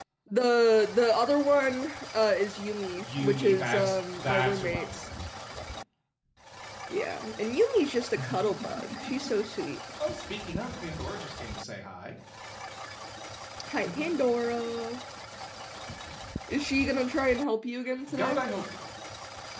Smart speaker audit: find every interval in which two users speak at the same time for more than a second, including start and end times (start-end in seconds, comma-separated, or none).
3.0-5.1